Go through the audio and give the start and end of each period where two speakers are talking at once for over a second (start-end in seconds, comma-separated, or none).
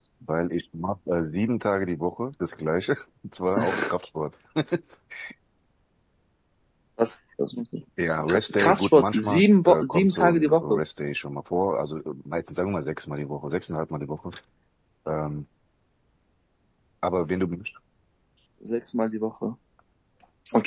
8.3-10.8